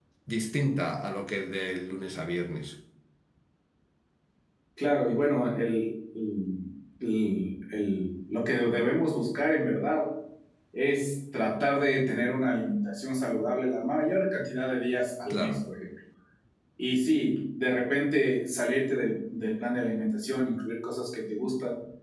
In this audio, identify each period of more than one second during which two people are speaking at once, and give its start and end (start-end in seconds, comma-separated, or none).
none